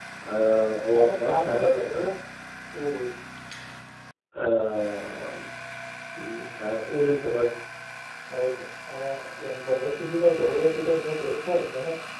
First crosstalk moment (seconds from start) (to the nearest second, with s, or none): 1 s